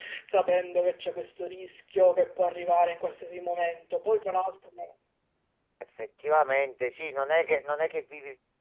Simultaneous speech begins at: none

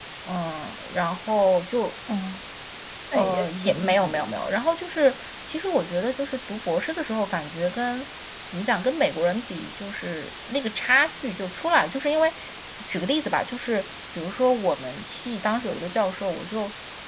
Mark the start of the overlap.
3.1 s

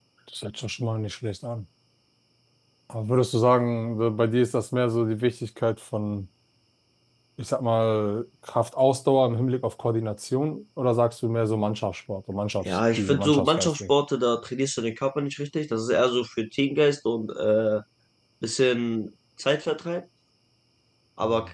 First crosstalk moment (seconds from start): 12.6 s

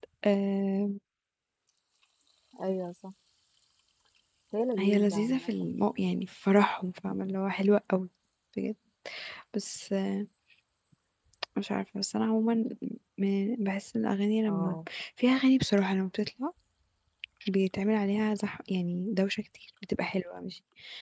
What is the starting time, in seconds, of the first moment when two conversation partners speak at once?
4.8 s

